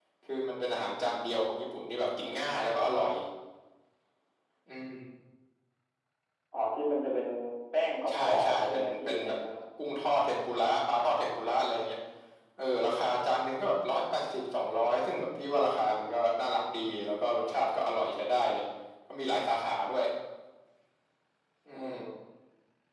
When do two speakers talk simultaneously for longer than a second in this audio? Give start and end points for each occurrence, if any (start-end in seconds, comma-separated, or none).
8.1-9.3